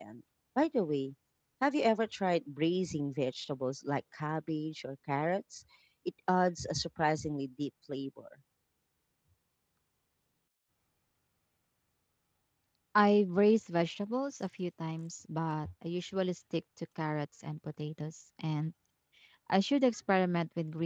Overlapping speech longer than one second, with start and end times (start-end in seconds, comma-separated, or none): none